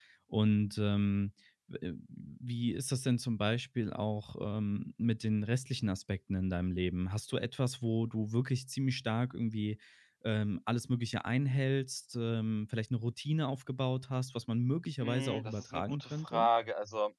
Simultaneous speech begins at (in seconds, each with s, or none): 15.0 s